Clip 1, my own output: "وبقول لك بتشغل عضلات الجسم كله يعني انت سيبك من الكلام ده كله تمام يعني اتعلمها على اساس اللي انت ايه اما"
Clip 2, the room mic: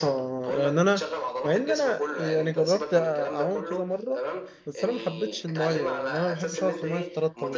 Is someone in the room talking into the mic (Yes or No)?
Yes